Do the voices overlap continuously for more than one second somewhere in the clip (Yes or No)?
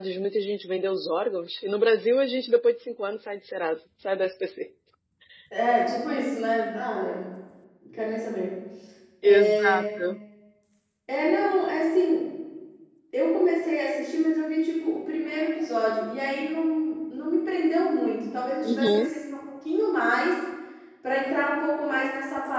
No